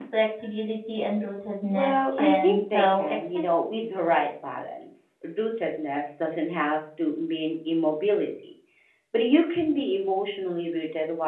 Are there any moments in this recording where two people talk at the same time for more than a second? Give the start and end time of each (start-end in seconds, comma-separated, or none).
1.7-3.6